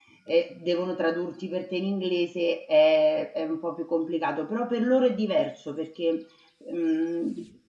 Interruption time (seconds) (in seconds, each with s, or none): none